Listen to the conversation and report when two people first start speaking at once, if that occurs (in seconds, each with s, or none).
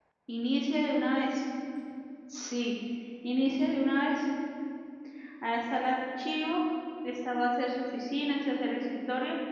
none